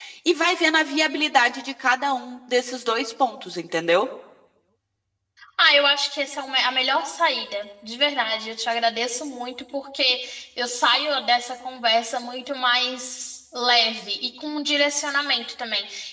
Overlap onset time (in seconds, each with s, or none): none